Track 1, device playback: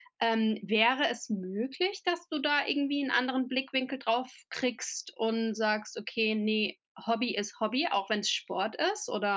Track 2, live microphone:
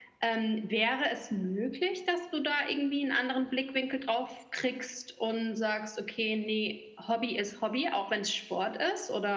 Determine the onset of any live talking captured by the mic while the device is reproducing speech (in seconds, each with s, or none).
none